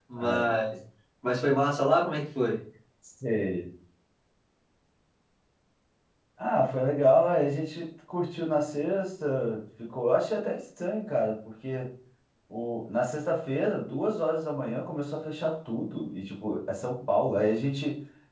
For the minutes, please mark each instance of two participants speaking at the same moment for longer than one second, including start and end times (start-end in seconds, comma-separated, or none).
none